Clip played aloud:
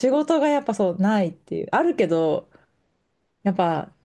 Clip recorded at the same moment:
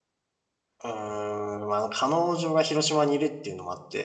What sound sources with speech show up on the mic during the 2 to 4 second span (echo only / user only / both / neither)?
user only